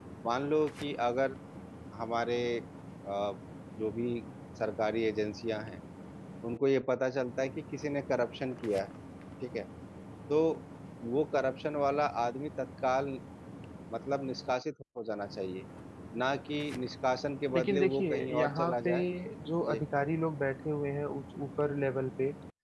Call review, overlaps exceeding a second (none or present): present